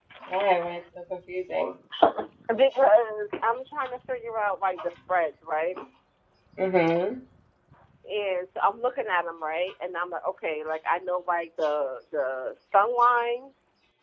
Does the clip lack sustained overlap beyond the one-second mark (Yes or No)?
Yes